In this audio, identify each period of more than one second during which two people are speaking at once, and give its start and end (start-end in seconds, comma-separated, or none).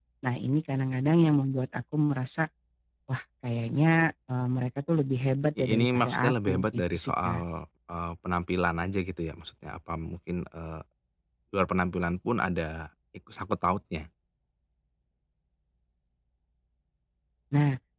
5.6-7.4